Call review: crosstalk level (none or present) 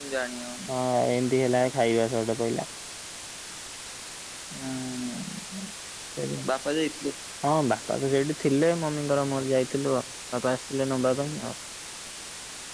none